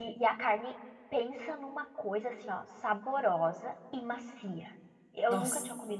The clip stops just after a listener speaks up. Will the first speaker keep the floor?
Yes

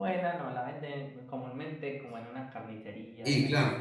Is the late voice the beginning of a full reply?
Yes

